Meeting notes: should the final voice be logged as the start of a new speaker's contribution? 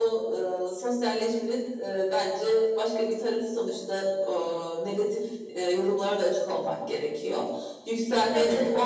No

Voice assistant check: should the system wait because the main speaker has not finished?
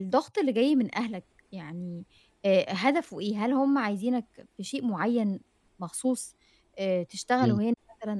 Yes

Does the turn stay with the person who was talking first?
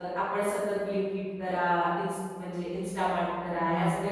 Yes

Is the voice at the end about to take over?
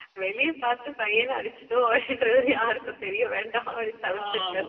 Yes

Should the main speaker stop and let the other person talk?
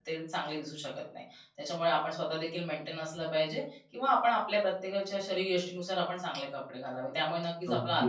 No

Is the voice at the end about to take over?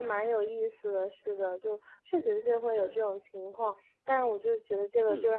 No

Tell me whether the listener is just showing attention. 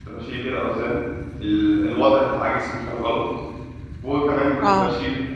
Yes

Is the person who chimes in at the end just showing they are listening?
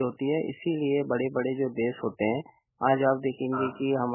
Yes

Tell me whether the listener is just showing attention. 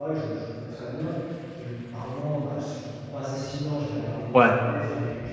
Yes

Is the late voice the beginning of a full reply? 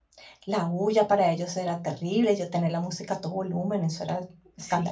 Yes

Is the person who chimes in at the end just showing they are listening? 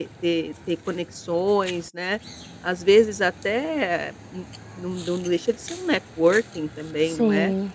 Yes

